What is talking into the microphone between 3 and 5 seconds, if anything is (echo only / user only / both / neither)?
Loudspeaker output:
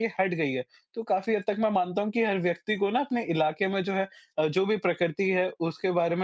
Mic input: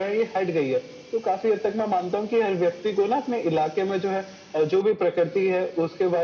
echo only